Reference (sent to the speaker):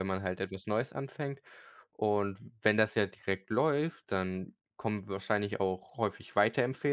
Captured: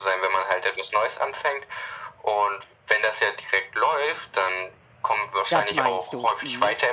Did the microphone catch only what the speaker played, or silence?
No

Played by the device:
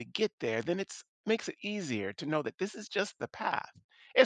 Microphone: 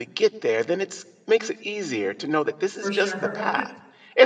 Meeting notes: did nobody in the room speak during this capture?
No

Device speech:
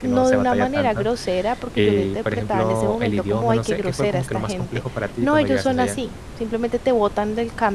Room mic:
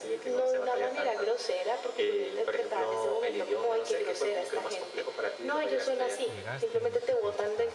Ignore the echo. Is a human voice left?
Yes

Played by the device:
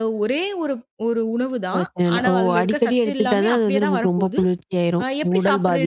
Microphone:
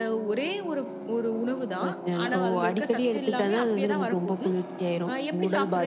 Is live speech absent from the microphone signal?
Yes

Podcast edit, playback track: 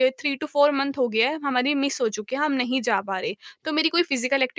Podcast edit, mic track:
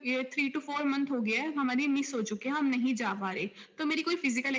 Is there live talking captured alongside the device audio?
No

